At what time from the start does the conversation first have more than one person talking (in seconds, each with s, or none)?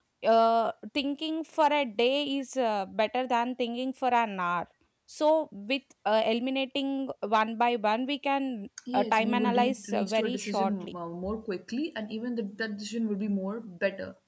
8.9 s